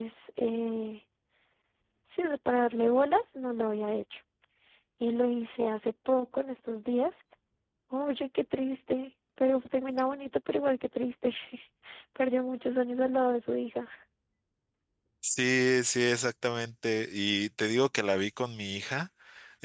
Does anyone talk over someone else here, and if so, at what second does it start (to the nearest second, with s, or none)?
none